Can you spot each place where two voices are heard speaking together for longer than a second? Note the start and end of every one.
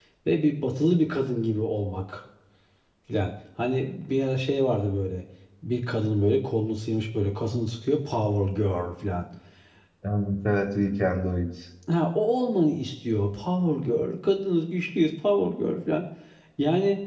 none

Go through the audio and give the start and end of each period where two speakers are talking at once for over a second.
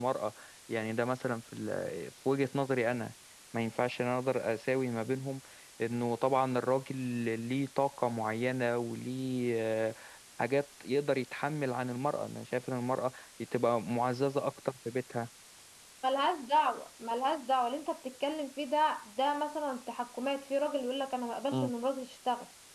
none

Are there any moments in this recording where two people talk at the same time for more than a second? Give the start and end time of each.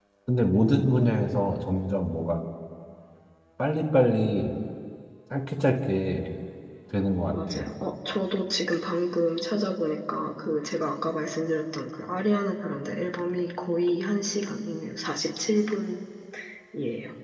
none

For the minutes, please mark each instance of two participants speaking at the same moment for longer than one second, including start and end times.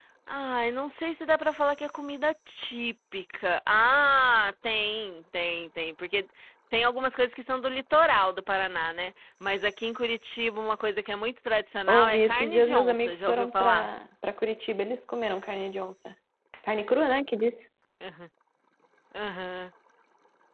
11.9-13.9

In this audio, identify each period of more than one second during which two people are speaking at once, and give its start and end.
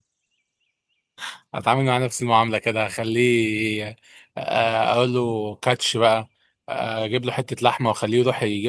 none

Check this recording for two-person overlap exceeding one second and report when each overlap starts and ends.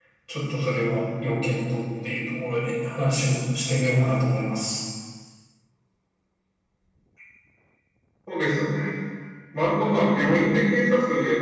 none

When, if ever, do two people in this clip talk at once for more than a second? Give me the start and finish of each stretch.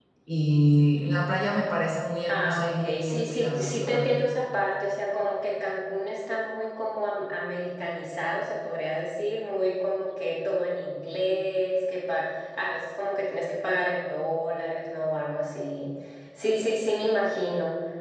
2.3-4.3

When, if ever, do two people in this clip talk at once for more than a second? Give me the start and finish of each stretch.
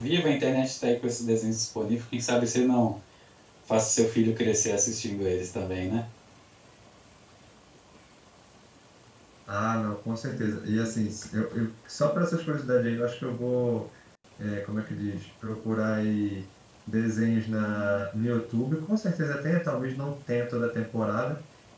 none

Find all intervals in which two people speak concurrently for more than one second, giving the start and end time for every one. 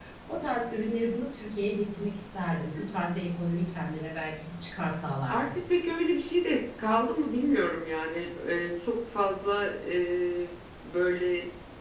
none

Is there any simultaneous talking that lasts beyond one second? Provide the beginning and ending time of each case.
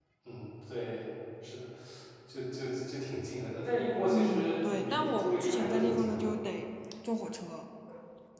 4.1-6.3

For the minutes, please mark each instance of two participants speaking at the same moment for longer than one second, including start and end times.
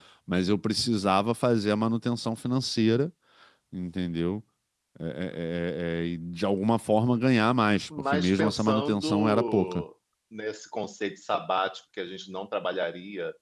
8.1-9.8

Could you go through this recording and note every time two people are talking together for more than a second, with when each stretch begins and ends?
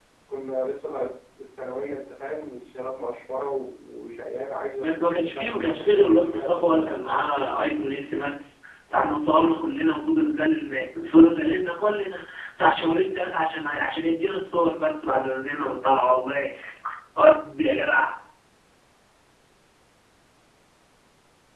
5.3-6.9

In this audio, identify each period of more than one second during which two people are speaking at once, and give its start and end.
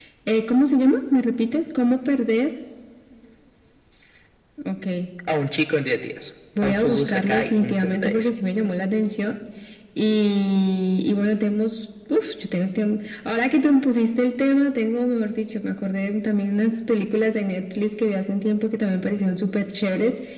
6.6-8.3

